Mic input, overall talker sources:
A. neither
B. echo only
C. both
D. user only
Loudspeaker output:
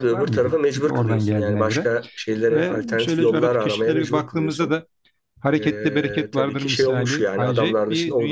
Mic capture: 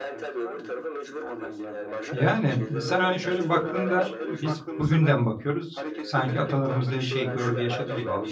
C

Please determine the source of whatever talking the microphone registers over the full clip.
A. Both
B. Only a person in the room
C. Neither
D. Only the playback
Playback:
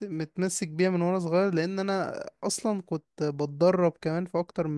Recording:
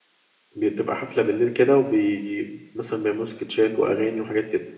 B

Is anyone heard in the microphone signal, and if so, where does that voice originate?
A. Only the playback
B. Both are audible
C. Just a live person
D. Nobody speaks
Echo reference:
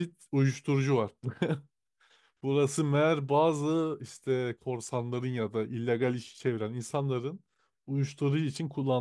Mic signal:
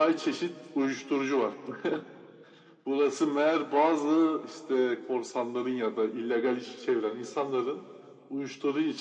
A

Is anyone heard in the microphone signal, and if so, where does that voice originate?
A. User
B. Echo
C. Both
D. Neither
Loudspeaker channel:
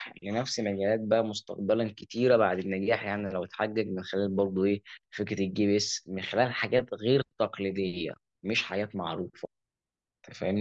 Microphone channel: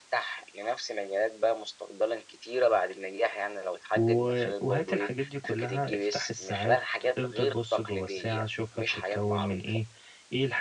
C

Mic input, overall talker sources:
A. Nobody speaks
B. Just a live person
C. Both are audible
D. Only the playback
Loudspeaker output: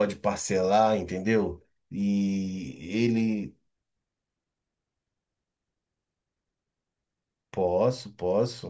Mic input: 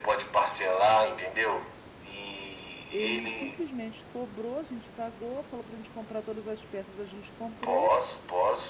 C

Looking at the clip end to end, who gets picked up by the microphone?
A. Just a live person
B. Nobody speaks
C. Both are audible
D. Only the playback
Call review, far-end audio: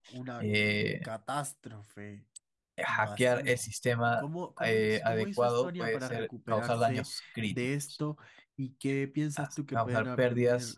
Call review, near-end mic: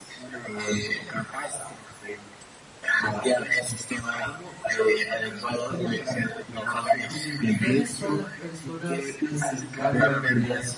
C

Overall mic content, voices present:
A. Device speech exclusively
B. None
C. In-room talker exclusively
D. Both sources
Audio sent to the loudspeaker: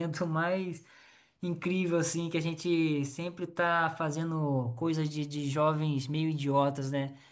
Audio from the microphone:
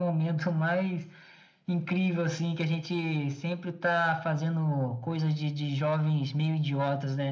A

